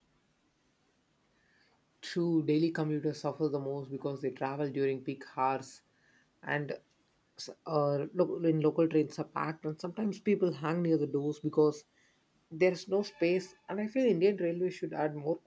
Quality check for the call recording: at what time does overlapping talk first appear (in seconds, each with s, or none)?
none